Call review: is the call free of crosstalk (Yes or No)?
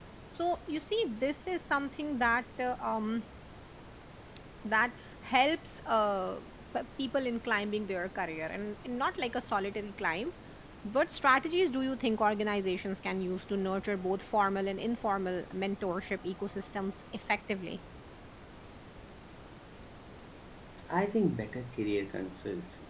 Yes